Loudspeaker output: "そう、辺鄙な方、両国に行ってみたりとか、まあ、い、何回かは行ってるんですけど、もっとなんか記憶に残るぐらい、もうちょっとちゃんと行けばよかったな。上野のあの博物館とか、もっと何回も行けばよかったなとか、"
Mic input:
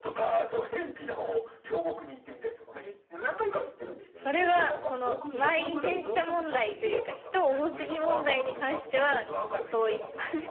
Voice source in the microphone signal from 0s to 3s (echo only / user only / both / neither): echo only